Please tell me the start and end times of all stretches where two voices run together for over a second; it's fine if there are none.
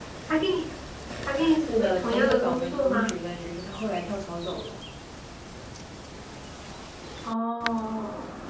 1.7-3.2

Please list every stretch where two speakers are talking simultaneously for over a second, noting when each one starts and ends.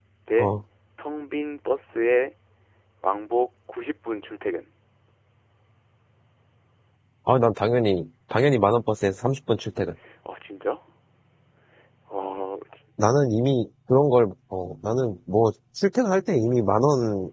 none

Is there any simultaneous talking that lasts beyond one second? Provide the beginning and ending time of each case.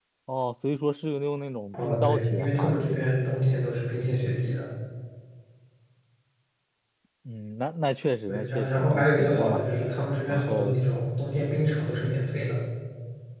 1.7-3.1, 8.3-9.6

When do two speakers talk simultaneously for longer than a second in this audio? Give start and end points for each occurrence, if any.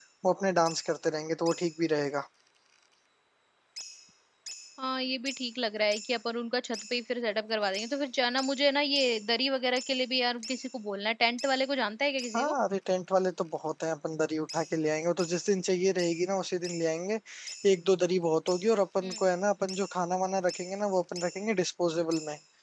none

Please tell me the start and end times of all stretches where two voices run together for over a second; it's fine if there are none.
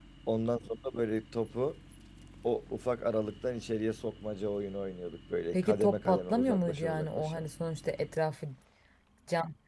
5.5-7.4

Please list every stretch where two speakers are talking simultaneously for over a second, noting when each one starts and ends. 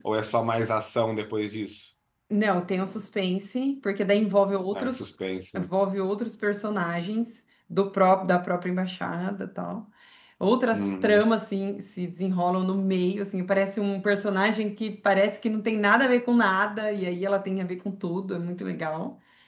none

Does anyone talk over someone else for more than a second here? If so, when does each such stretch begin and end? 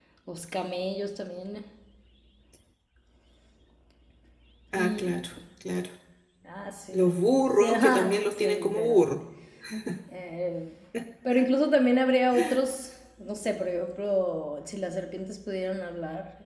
7.6-9.1

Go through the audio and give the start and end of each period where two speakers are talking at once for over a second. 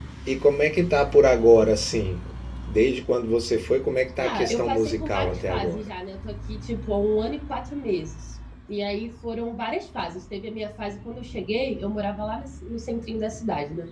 4.2-5.9

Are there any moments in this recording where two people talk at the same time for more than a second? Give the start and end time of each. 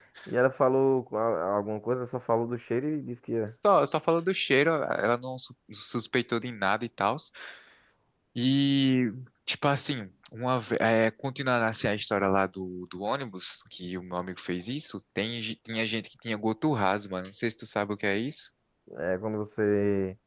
none

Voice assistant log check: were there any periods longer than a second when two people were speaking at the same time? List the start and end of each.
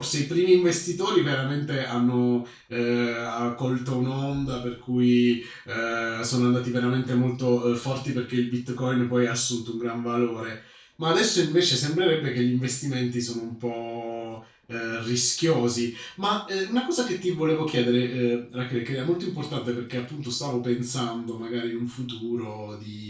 none

